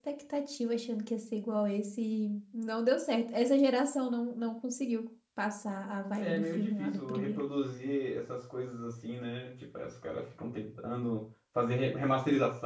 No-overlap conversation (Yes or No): No